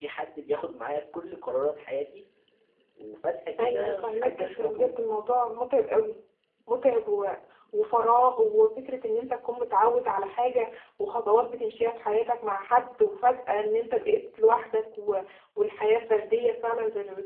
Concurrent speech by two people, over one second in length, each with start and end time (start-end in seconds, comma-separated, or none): 3.6-4.9